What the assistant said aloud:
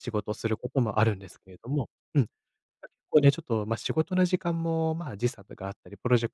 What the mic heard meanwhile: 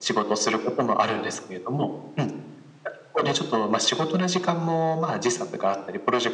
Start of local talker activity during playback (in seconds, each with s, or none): none